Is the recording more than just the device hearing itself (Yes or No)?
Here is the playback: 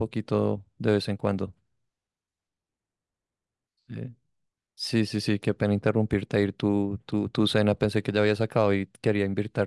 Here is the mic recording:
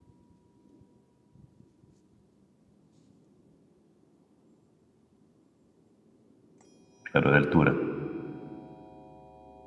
Yes